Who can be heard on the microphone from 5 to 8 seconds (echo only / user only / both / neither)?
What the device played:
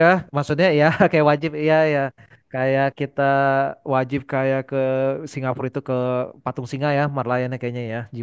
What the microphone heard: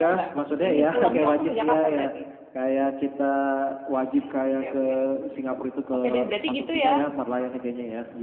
both